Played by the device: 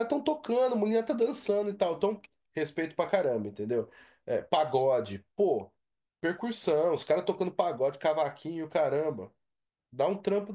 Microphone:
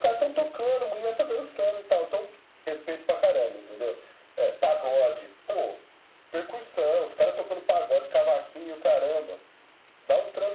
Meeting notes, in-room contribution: none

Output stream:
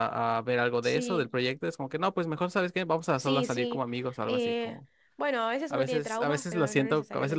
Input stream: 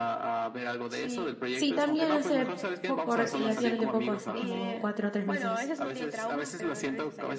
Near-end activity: present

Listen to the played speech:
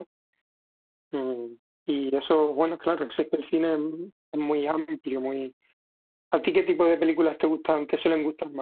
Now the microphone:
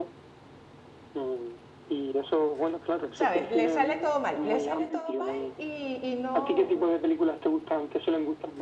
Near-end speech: present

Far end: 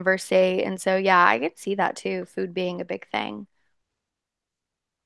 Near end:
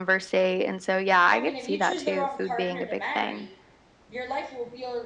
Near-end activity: present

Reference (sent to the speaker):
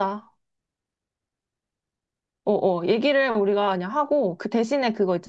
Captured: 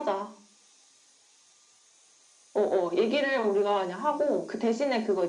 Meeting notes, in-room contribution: none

